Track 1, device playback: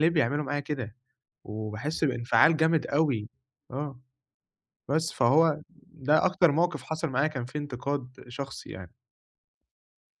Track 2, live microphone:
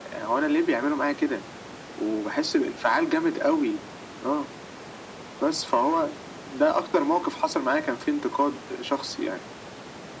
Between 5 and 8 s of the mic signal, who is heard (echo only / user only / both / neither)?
echo only